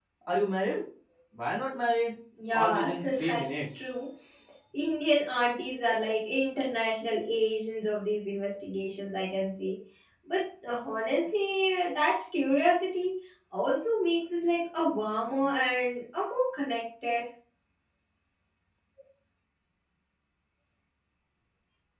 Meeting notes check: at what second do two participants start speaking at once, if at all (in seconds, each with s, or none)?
2.4 s